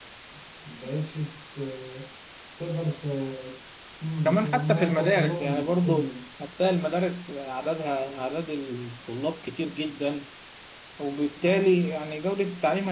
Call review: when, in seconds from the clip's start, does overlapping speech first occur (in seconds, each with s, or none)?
4.2 s